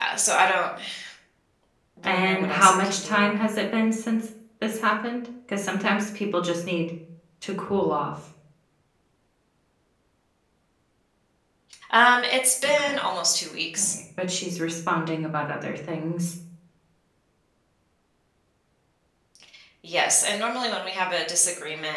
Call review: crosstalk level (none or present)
present